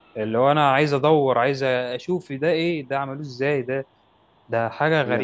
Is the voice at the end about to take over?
Yes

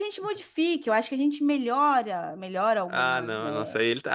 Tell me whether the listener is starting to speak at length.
Yes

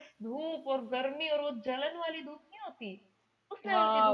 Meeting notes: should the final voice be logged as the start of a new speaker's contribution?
Yes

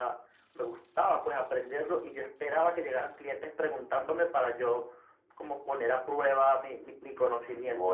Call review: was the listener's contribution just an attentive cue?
No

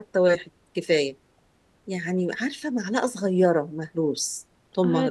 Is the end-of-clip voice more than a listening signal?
Yes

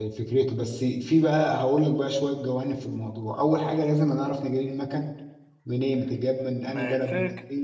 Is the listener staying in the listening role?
No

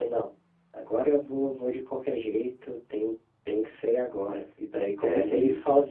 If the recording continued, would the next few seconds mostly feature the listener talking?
No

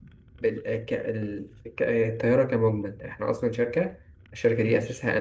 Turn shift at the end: No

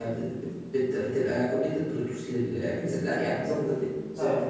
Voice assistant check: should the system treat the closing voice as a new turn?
Yes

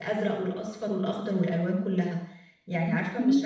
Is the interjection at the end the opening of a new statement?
No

